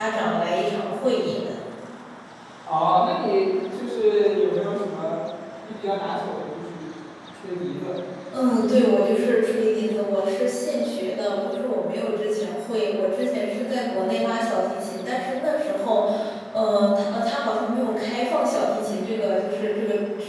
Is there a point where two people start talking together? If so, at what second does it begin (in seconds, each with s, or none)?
none